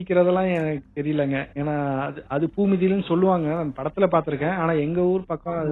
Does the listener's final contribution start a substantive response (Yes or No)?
No